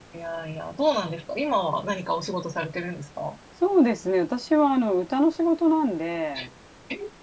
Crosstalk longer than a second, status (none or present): none